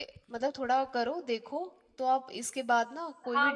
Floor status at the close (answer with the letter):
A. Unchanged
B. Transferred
B